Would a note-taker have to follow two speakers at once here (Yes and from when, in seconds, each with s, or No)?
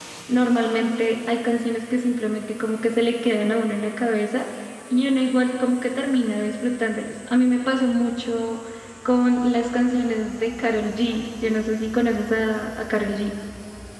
No